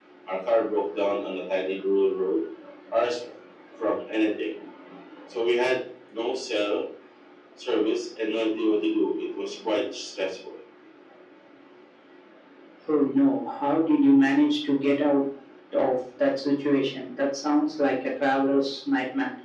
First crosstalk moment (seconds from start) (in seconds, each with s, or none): none